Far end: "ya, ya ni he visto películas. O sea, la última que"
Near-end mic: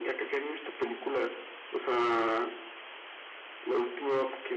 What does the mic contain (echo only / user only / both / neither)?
echo only